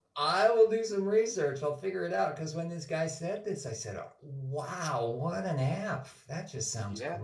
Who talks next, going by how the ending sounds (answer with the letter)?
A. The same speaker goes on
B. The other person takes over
B